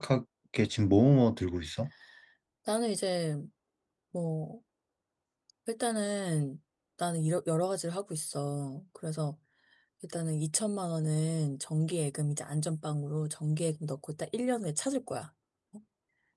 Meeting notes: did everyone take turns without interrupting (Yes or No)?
Yes